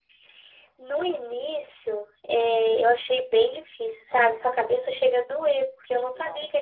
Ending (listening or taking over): listening